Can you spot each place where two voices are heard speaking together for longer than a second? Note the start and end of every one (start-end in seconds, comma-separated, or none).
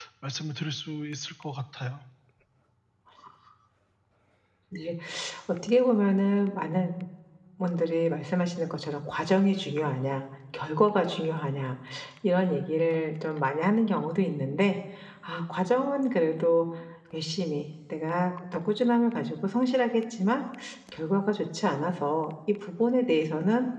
none